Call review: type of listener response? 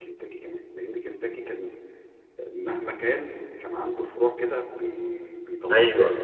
taking over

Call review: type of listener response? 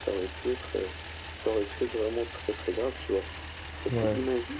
listening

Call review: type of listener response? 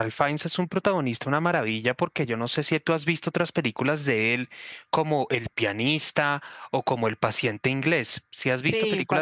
taking over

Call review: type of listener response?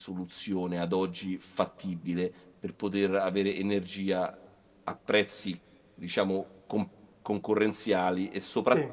listening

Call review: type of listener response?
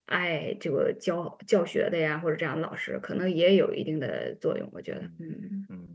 taking over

